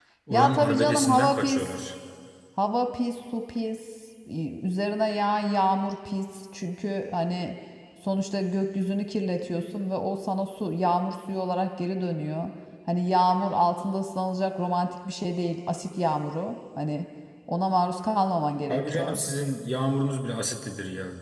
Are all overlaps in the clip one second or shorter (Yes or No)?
No